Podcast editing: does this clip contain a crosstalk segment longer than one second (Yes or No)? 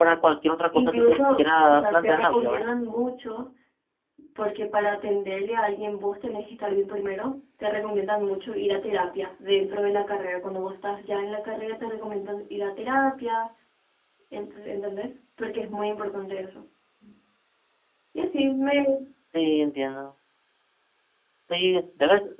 Yes